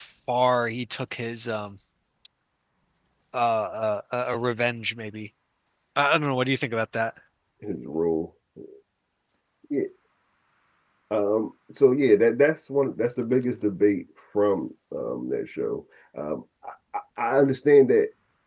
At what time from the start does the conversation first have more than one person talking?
none

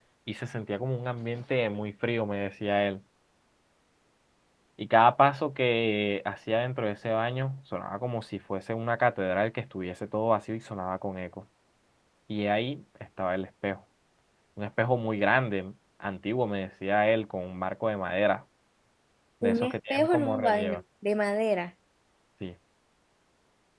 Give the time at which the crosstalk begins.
19.4 s

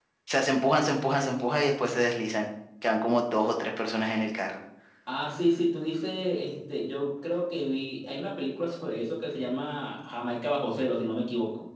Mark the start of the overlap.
none

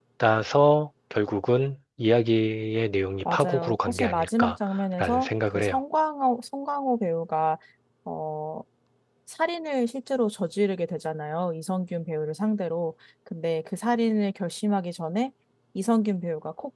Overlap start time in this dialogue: 3.2 s

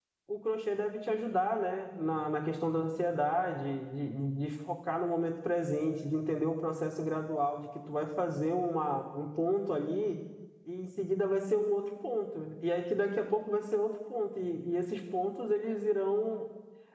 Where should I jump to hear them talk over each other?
none

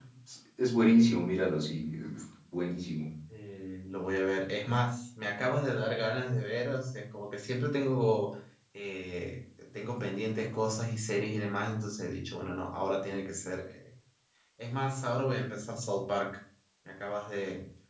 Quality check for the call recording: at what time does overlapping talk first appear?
none

